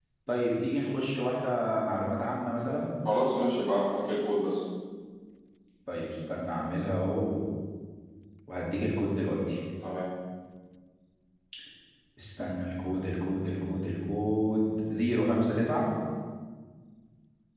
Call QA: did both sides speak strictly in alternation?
Yes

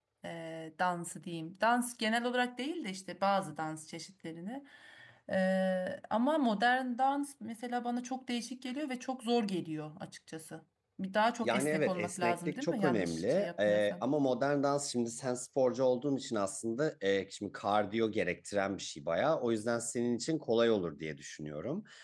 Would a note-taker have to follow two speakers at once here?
Yes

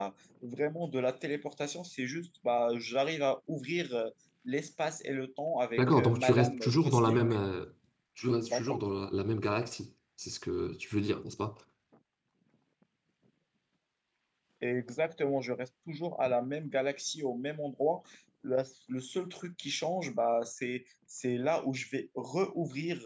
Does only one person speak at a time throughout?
No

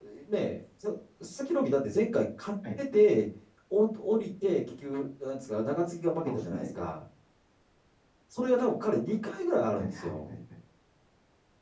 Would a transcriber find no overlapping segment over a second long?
Yes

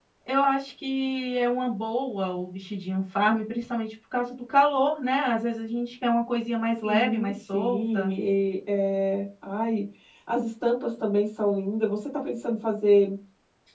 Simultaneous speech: Yes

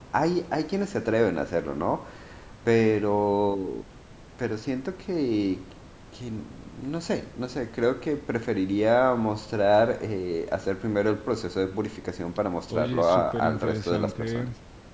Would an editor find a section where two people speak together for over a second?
Yes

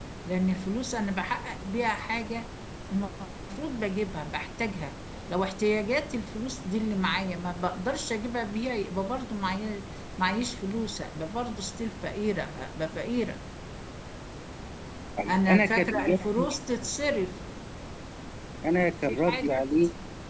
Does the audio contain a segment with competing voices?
Yes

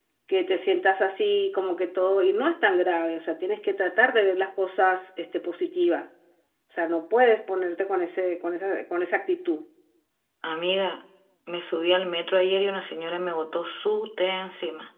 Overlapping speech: No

